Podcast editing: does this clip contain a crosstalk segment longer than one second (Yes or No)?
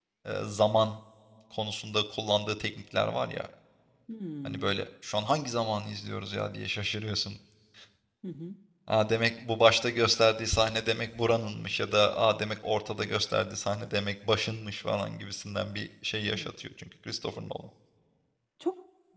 No